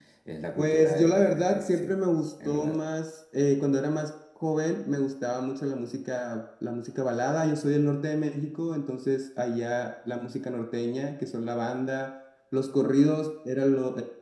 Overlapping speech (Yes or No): Yes